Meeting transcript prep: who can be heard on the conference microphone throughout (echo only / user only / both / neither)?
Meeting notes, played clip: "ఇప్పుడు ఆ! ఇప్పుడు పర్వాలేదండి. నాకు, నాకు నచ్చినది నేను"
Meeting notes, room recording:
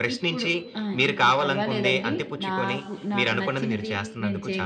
both